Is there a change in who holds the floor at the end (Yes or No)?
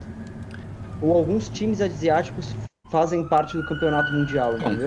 Yes